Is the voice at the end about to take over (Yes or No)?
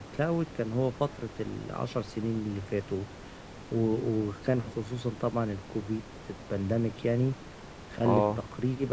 No